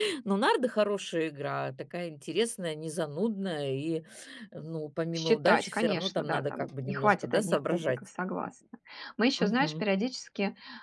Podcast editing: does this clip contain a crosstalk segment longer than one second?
Yes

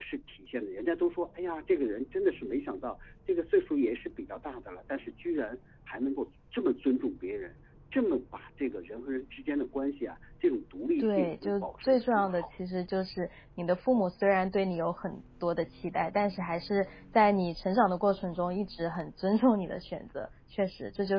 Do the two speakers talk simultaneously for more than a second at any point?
Yes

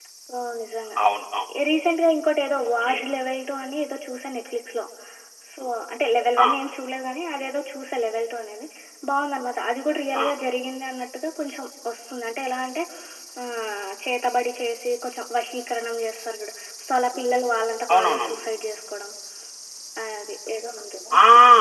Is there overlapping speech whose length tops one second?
No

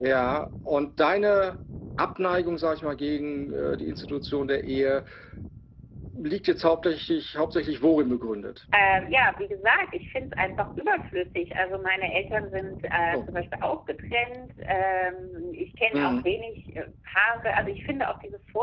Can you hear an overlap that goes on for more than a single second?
No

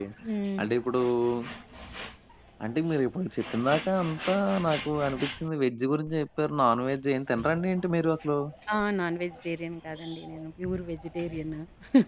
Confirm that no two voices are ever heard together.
Yes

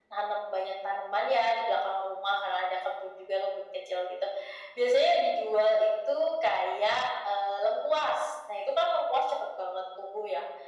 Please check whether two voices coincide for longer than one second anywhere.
No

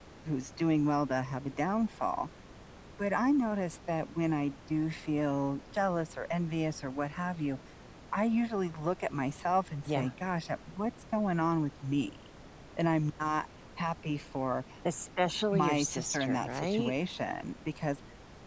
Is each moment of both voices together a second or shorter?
No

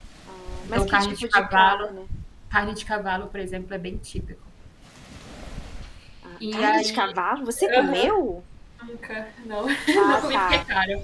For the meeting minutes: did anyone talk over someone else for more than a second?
Yes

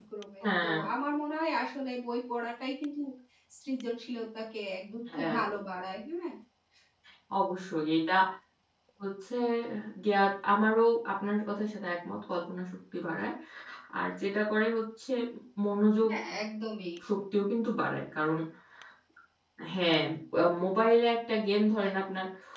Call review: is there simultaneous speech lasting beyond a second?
No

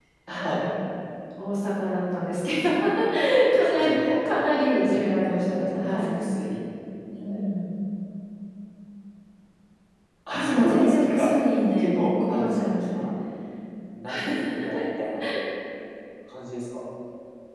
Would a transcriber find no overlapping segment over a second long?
No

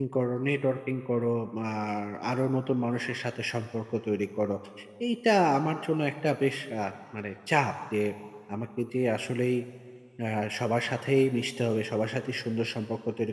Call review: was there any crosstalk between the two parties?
No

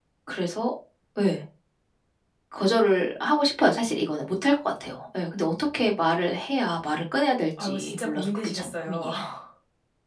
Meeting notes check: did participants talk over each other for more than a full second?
Yes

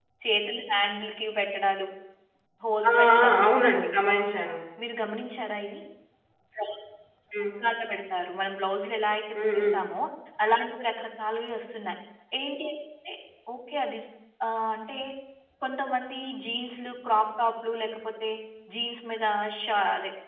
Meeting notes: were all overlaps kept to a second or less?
Yes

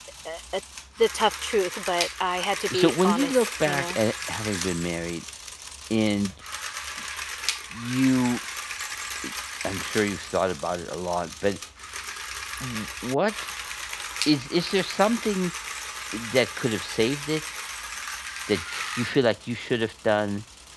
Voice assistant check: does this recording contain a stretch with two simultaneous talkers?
Yes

